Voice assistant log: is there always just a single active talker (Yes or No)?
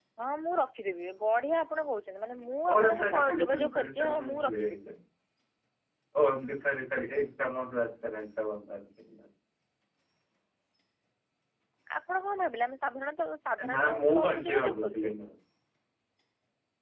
No